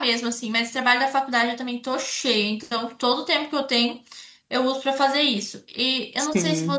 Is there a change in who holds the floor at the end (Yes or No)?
No